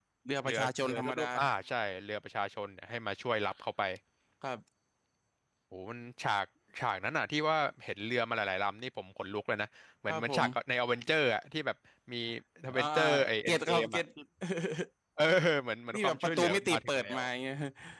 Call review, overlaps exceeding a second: present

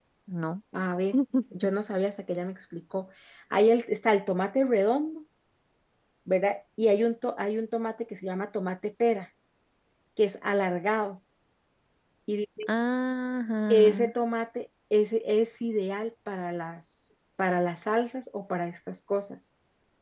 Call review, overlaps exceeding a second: none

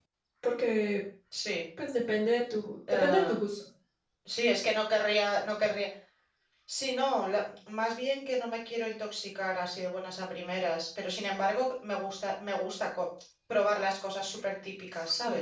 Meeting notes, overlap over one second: none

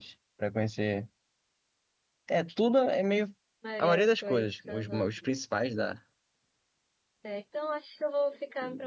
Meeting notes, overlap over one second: present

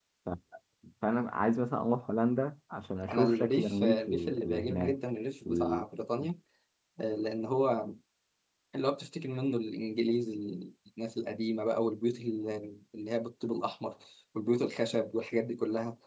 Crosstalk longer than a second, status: present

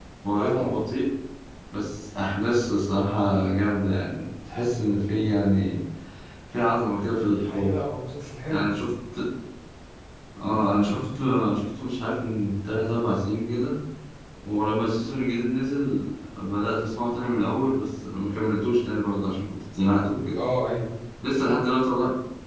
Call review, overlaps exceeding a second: none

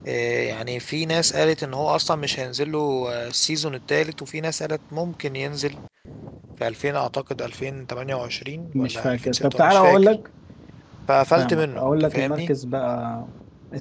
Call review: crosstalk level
present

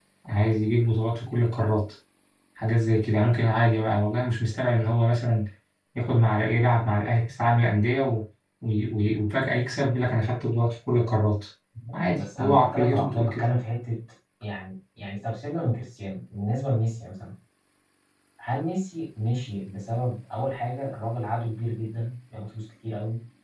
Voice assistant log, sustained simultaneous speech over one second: present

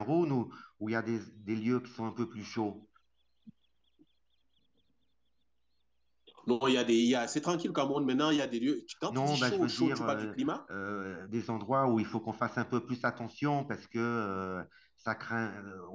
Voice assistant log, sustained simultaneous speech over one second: present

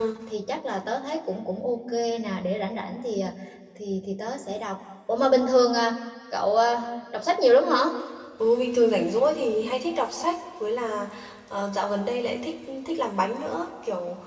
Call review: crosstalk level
none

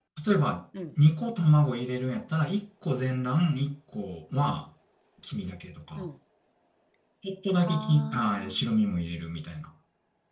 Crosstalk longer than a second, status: present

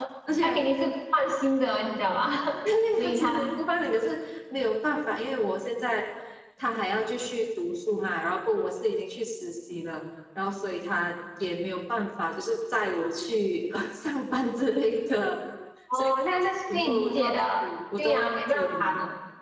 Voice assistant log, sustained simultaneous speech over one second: present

